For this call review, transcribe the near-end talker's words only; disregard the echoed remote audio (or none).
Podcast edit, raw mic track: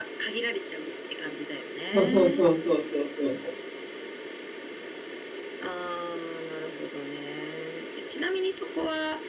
そうそうそうそうそうそうそ